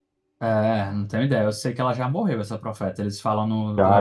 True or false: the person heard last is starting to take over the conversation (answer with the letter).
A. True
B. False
A